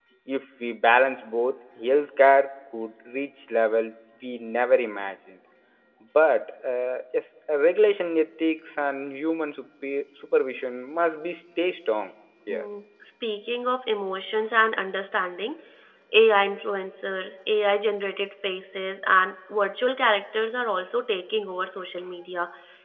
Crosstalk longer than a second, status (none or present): none